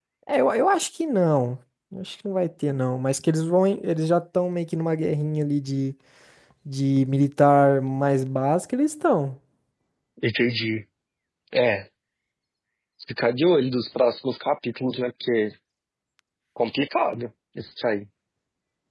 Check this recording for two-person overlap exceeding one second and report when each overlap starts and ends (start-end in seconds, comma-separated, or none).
none